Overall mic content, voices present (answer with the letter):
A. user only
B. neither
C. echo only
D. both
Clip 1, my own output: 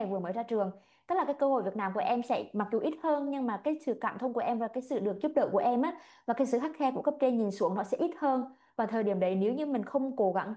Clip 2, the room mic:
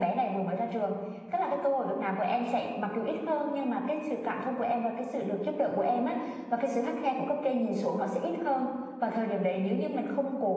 C